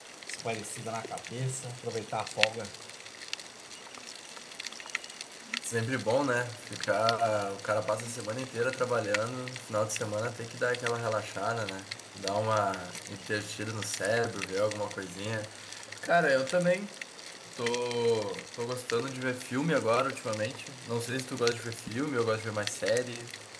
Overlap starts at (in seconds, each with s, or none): none